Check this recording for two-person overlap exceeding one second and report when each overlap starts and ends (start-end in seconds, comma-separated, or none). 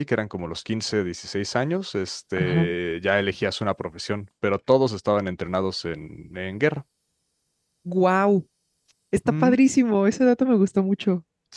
none